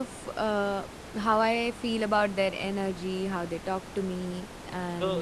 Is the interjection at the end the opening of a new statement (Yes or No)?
Yes